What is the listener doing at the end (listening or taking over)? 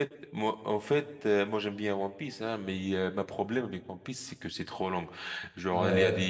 listening